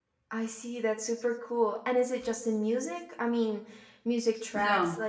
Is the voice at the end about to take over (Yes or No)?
No